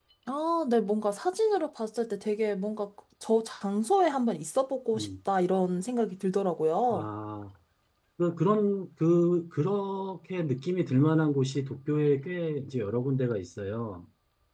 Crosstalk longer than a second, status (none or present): none